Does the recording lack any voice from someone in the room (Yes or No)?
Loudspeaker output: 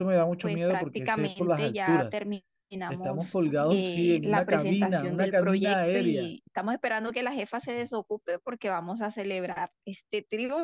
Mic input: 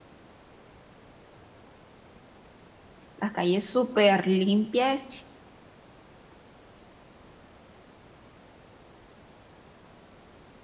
No